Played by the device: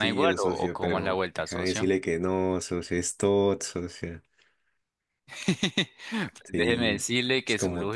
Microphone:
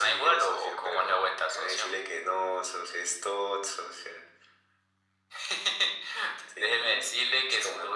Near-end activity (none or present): none